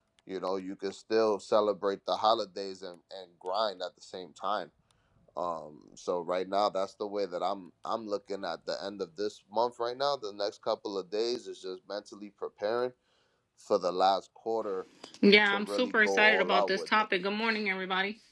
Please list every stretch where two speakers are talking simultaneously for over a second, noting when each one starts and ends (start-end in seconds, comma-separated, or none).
15.5-17.0